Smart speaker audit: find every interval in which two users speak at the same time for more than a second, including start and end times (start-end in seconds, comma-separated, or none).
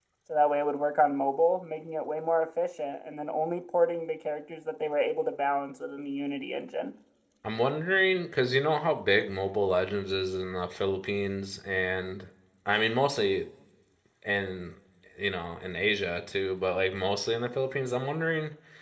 none